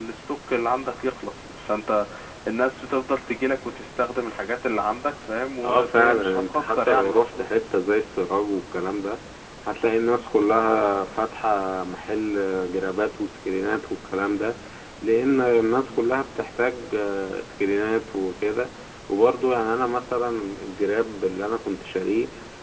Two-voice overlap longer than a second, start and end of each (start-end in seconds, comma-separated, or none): 5.6-7.5